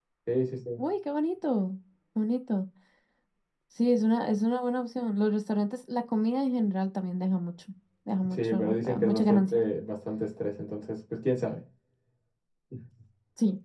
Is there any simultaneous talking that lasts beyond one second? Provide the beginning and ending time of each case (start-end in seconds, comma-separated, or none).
8.3-9.6